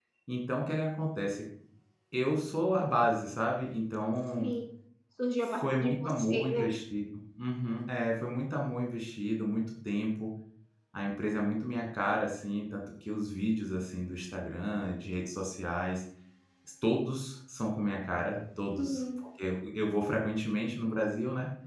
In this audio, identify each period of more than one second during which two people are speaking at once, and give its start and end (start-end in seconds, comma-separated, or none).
5.4-6.7